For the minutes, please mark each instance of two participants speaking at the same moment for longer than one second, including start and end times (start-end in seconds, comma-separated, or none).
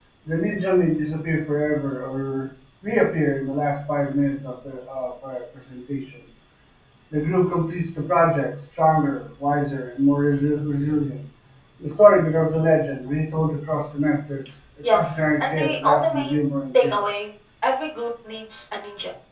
14.9-16.3